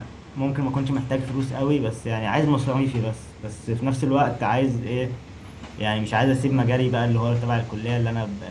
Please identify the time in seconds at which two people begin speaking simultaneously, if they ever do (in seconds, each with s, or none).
none